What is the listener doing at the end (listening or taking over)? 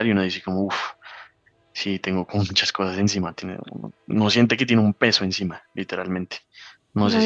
taking over